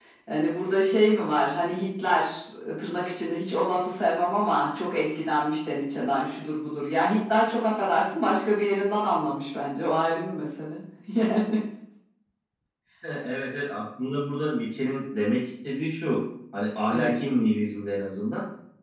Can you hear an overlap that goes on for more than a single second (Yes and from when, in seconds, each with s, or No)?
No